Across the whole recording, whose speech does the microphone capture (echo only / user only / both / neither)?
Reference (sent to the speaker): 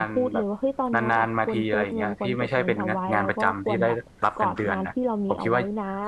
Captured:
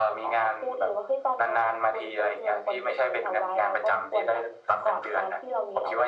echo only